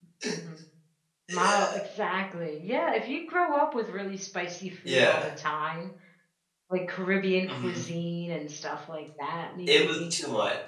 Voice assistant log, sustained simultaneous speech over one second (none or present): none